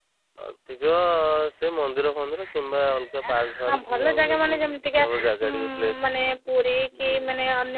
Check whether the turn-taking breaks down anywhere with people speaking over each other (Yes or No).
Yes